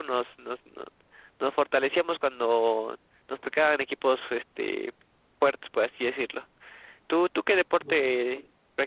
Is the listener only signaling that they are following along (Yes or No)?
Yes